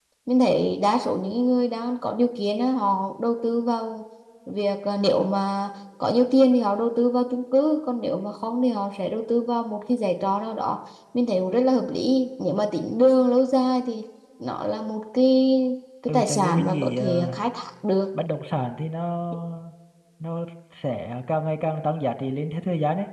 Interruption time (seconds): 16.1 s

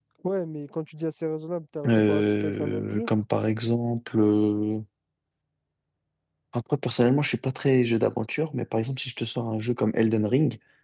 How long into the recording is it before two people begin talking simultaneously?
1.8 s

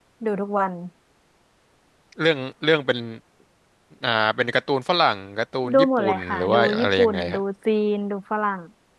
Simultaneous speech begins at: 5.6 s

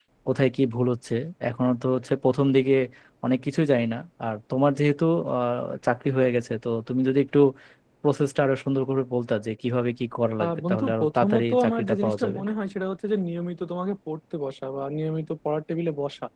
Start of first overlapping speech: 10.4 s

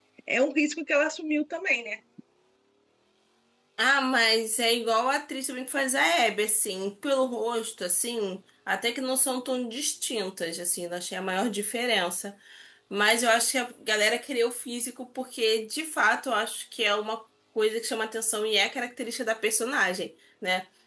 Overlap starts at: none

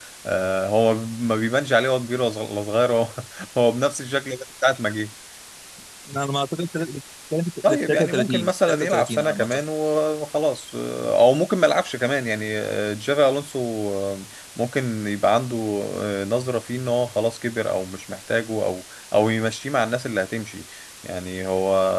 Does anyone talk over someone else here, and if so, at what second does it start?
7.9 s

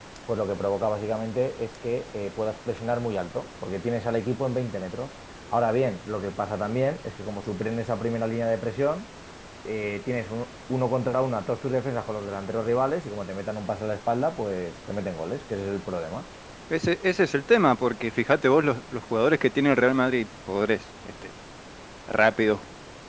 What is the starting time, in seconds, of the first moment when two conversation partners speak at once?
none

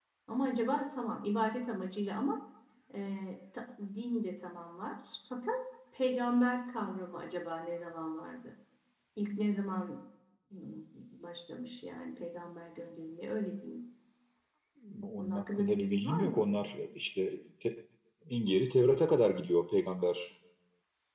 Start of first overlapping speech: 15.2 s

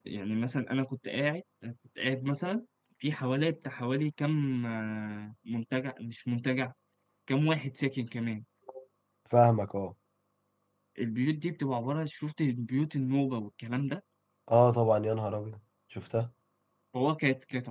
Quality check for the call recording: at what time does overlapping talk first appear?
none

